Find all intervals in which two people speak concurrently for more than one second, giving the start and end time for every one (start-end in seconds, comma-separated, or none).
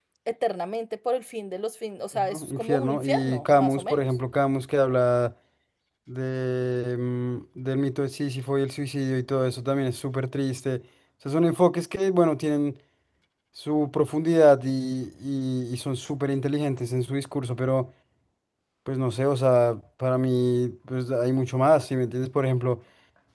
2.1-4.1